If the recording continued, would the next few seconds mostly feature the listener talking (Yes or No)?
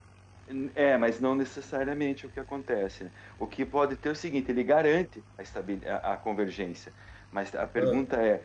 No